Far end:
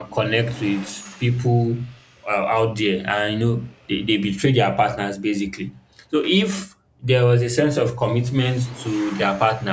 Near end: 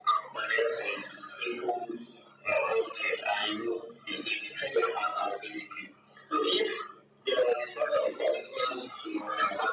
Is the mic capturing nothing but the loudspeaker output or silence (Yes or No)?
Yes